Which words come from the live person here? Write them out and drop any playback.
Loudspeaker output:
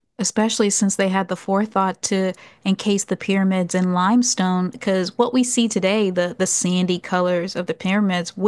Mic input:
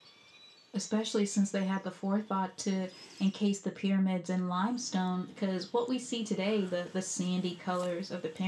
none

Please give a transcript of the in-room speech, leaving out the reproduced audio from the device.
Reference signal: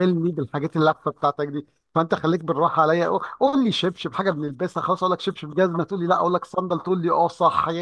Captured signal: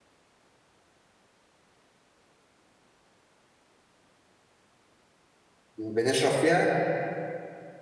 بنشرب فيها

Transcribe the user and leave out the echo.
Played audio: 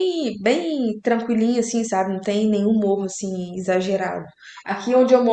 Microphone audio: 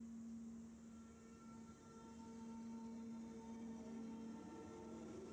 none

